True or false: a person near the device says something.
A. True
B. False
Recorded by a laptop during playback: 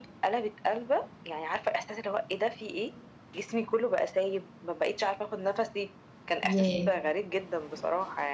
A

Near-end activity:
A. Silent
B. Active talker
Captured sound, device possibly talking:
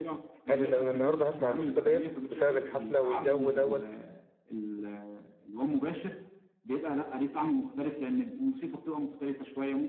B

